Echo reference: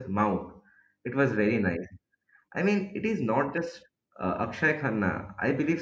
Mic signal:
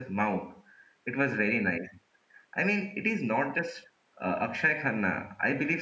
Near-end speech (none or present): none